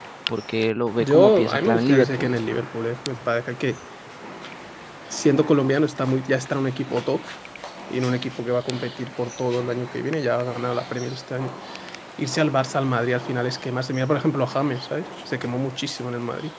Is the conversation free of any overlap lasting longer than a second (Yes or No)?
No